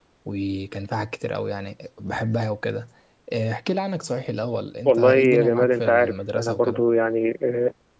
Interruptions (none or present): present